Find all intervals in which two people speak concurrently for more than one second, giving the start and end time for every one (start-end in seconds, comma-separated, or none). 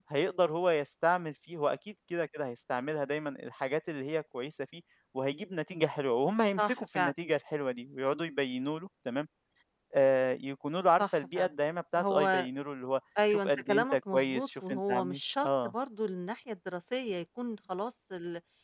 13.3-15.7